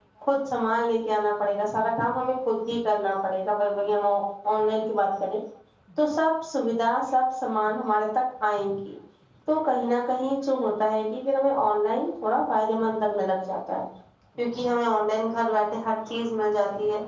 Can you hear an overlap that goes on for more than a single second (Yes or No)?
No